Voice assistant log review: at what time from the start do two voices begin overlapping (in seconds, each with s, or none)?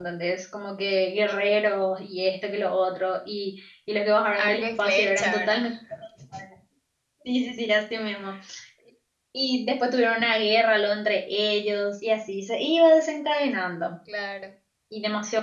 4.4 s